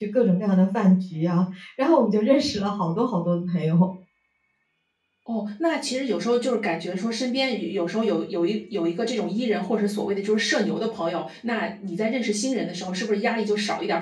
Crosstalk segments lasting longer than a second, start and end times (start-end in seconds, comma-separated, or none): none